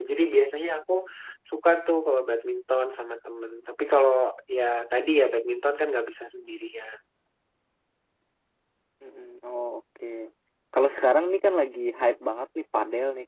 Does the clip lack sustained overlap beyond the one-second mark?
Yes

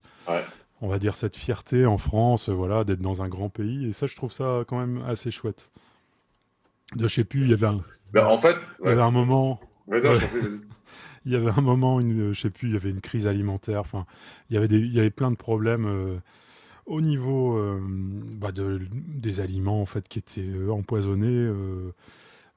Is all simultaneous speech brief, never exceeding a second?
Yes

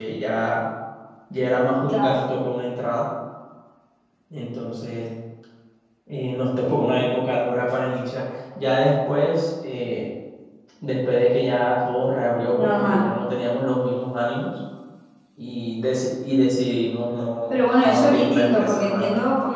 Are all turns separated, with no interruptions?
No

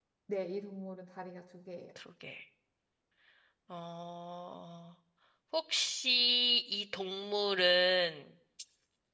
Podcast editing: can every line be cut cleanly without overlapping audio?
Yes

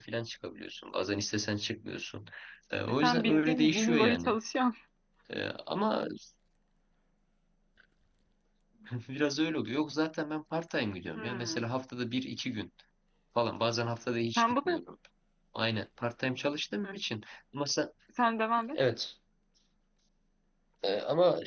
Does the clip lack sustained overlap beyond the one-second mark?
No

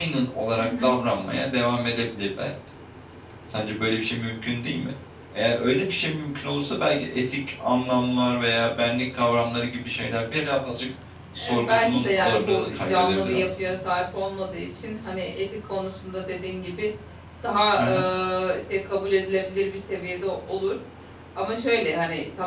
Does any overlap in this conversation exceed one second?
Yes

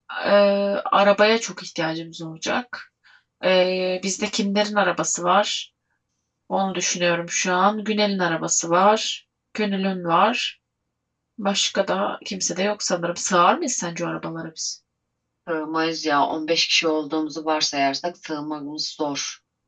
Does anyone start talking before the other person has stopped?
No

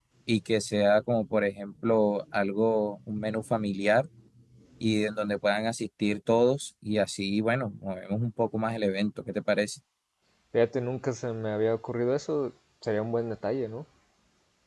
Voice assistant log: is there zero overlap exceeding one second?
Yes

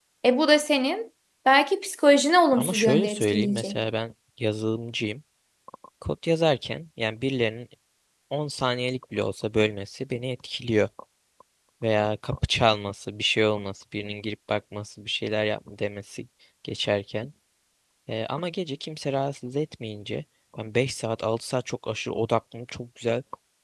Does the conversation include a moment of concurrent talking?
Yes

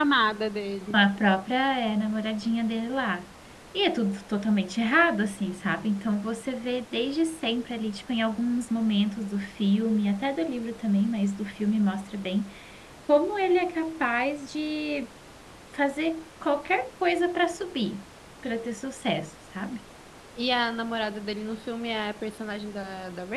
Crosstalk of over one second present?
No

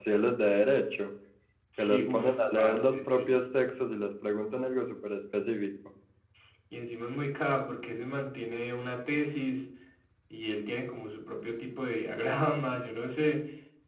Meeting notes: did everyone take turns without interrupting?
No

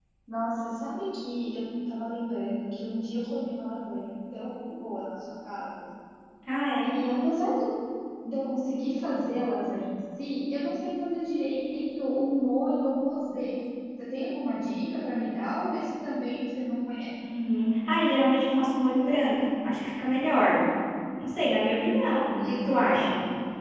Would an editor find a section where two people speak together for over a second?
No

